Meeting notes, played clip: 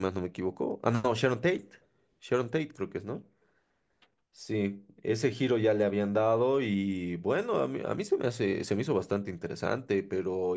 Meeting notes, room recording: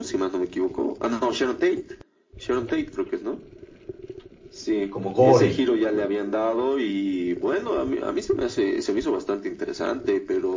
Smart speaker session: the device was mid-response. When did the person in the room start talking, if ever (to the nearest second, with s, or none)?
5 s